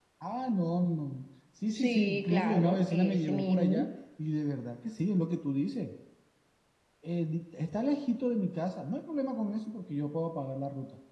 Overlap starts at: 1.7 s

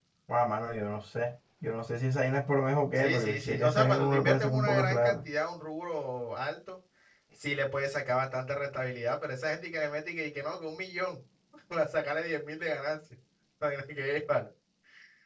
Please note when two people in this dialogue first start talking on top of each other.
3.0 s

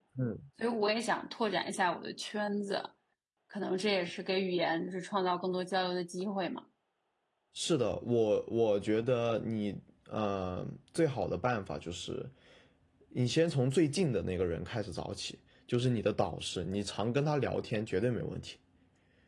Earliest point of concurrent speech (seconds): none

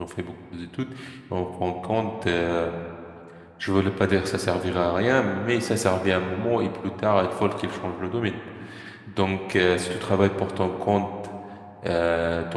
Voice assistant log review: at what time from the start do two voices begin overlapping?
none

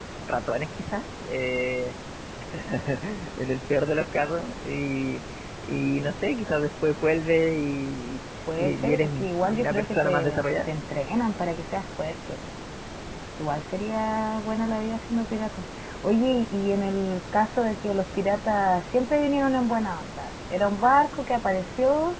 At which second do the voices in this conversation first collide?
8.5 s

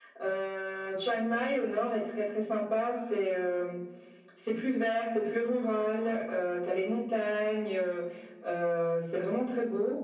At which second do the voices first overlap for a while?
none

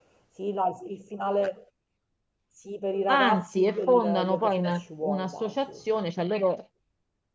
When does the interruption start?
3.1 s

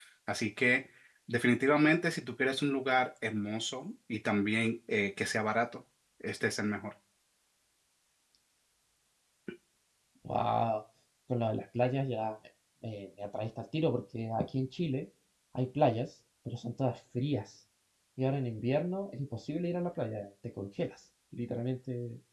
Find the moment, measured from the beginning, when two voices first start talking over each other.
none

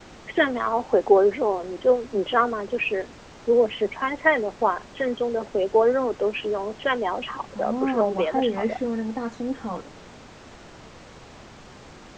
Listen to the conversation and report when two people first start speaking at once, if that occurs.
7.5 s

